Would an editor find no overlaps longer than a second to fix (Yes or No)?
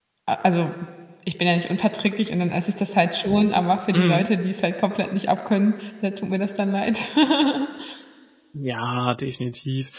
Yes